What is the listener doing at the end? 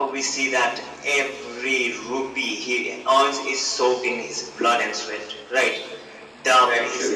listening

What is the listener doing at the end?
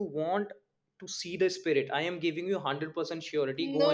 taking over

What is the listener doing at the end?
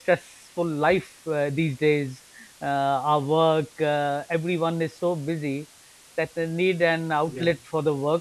listening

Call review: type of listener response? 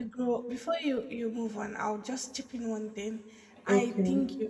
listening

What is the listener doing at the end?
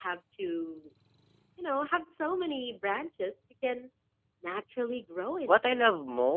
taking over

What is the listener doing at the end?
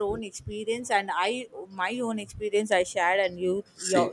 listening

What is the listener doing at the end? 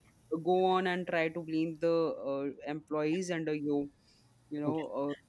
taking over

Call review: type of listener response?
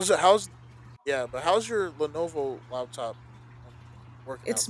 taking over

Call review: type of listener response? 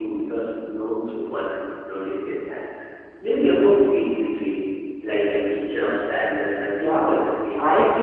taking over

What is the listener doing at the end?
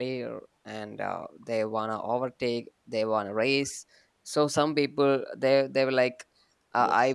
listening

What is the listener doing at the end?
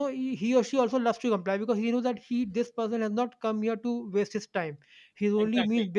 listening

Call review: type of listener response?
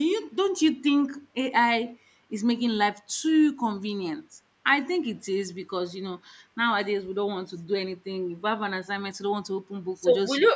taking over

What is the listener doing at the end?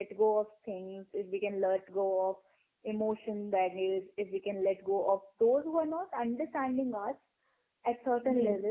listening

